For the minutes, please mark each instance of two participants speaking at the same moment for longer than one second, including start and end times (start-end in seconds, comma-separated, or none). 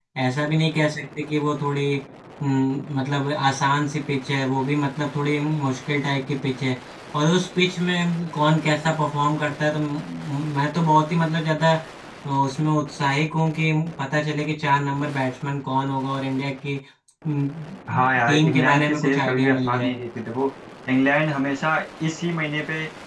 17.9-19.9